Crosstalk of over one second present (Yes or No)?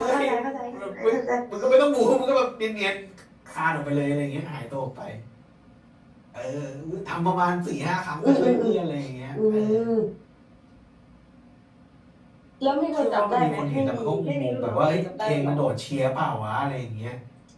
Yes